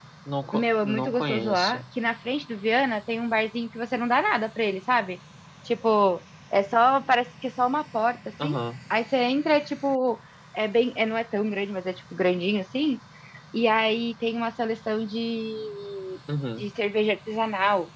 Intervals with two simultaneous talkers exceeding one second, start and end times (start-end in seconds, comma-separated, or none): 0.5-1.8